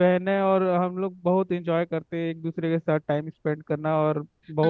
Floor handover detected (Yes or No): Yes